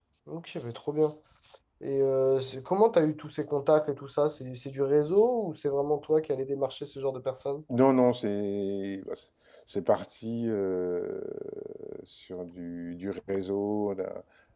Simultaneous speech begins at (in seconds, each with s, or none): none